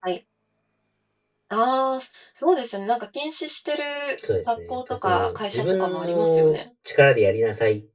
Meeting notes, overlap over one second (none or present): present